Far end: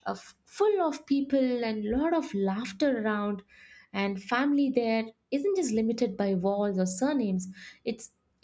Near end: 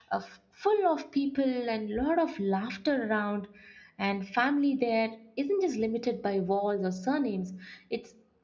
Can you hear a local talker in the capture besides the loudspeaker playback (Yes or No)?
No